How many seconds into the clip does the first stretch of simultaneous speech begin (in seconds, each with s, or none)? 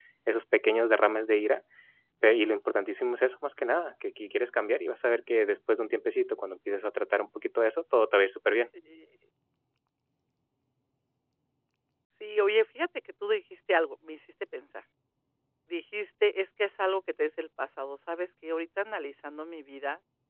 none